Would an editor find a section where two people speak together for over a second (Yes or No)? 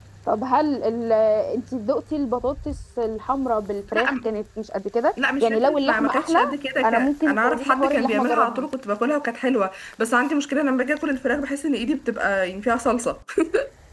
Yes